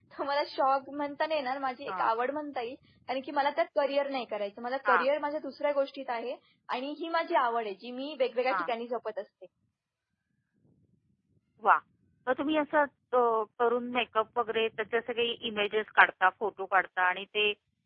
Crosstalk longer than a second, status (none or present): none